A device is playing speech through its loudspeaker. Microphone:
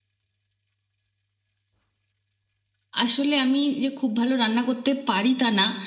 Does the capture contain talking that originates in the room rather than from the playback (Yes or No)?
Yes